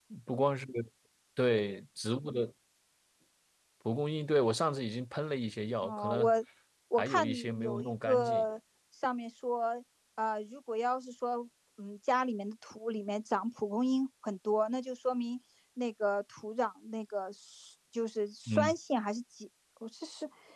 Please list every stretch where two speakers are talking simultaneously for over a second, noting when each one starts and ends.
7.0-8.4

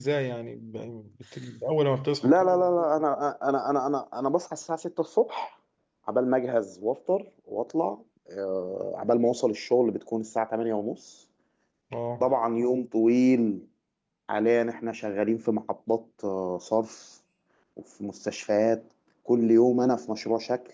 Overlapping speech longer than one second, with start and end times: none

